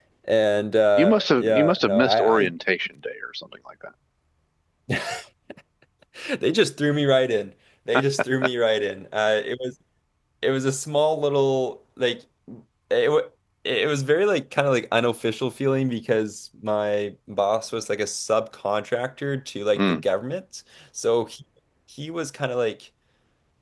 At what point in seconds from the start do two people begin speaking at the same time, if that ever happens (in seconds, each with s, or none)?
1.0 s